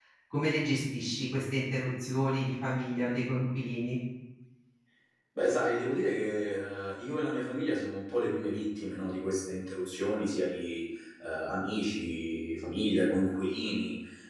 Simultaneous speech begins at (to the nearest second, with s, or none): none